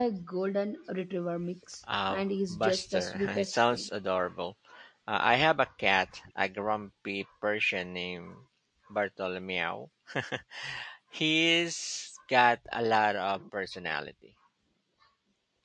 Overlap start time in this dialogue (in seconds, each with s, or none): 1.8 s